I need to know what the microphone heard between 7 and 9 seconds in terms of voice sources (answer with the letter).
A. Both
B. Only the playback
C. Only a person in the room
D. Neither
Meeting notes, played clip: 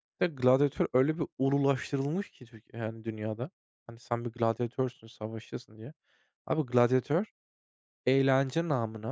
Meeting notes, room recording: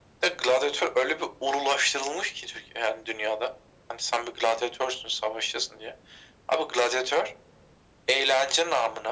B